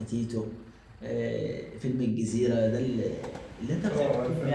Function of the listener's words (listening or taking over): taking over